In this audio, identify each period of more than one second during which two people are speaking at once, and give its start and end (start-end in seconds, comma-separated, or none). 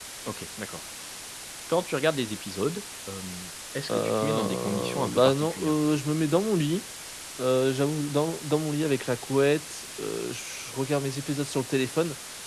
3.9-5.8